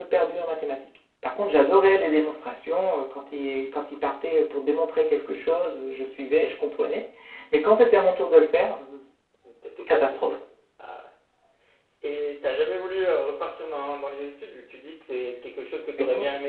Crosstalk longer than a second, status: none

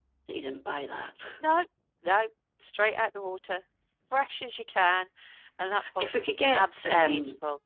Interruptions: present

